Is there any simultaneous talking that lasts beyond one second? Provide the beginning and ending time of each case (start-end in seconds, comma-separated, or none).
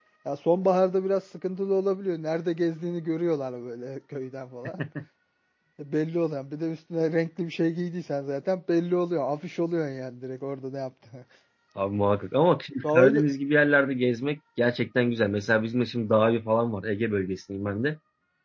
none